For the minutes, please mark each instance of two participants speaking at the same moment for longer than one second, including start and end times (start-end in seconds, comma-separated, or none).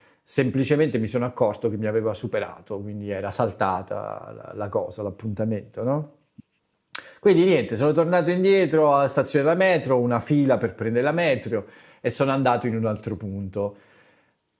none